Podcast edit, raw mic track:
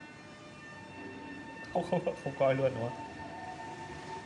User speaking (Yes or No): Yes